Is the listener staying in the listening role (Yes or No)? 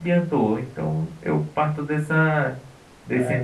Yes